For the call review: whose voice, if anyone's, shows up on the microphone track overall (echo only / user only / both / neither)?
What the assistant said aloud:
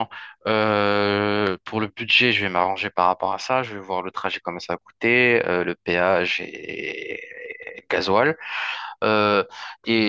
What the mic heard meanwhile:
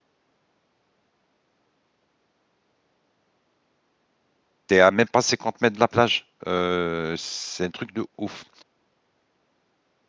user only